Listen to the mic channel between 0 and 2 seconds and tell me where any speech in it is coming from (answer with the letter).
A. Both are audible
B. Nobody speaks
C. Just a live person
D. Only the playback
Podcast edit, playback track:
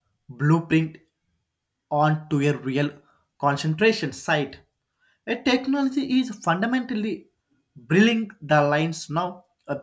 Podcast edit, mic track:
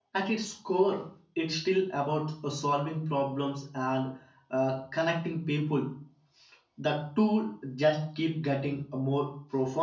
C